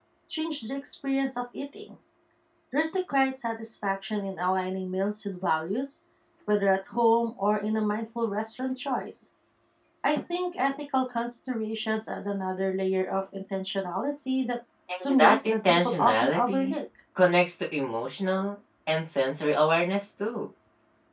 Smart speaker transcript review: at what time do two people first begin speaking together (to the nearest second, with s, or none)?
15 s